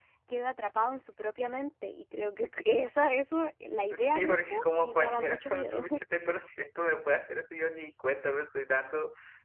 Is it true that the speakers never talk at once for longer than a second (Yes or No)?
No